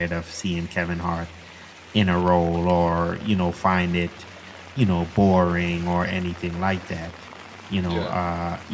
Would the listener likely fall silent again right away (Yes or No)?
Yes